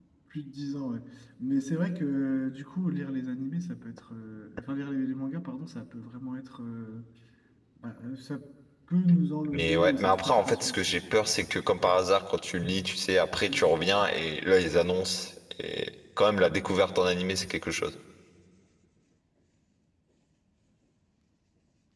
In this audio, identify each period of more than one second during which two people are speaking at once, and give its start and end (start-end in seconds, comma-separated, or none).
9.5-11.0